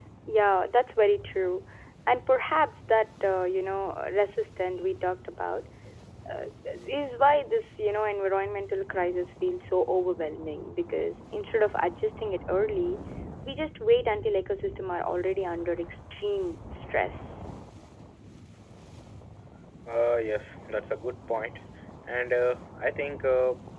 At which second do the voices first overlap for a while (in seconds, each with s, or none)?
none